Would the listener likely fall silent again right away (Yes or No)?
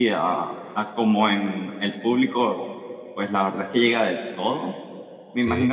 Yes